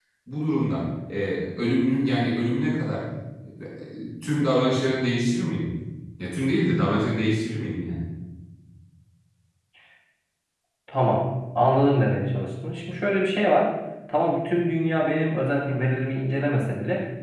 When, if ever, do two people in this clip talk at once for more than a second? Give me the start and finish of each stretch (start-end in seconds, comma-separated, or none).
none